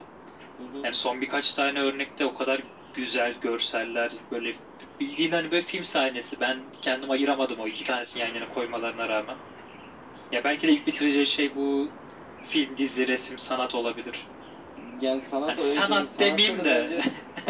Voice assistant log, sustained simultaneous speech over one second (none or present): present